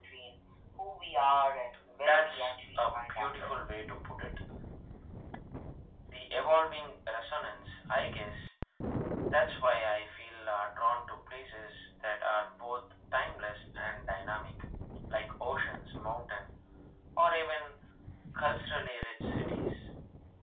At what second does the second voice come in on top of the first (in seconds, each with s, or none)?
1.9 s